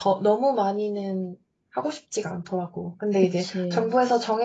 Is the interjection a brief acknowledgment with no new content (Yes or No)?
Yes